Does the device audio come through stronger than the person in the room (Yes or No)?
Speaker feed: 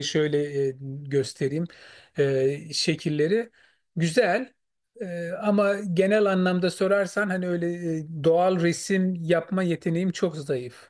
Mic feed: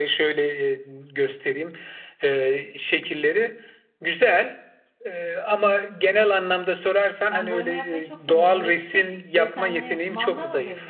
Yes